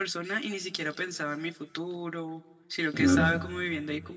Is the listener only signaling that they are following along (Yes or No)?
Yes